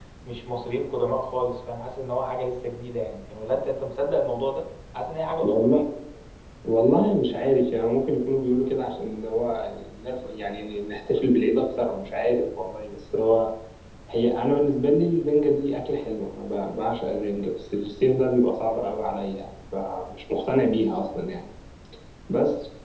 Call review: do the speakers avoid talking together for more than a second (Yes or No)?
Yes